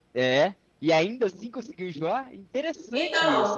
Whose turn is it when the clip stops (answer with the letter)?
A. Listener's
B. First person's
A